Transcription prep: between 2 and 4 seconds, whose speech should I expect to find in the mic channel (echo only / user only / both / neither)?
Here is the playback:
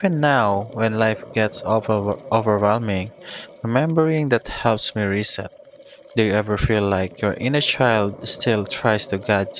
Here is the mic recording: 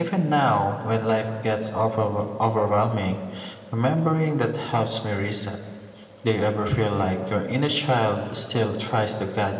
echo only